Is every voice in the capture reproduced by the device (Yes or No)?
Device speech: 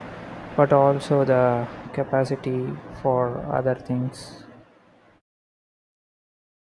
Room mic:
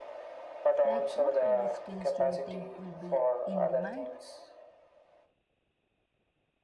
No